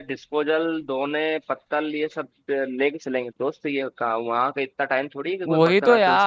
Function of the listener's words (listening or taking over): taking over